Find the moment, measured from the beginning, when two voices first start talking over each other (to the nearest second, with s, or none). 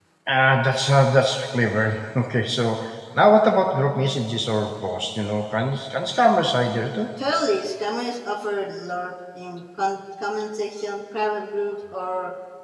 none